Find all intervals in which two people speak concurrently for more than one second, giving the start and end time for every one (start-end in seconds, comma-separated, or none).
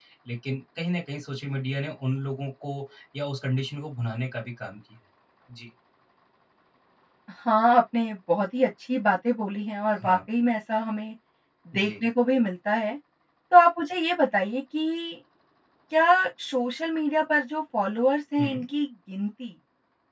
none